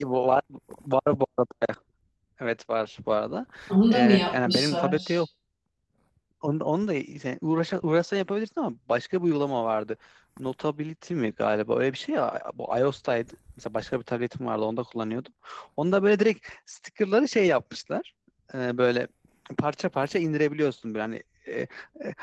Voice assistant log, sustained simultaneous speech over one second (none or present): present